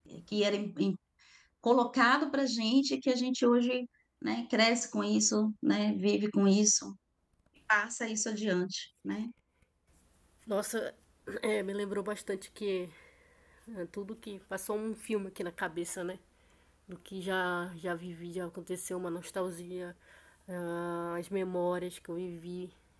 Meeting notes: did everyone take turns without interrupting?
Yes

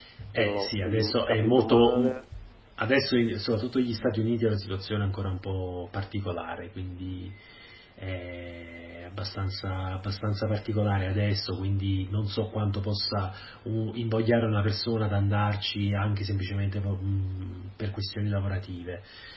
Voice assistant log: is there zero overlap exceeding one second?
No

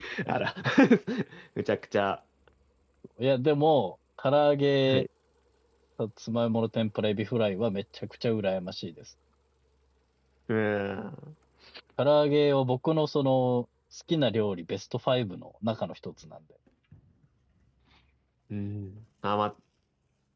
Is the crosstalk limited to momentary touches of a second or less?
Yes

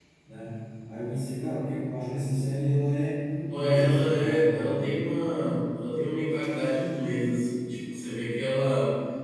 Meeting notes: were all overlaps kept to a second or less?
No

